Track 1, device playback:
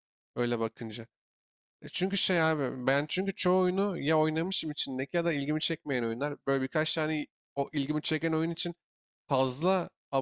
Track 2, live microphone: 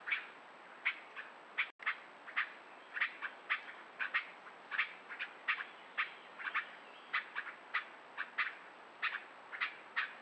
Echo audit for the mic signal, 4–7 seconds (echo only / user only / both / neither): neither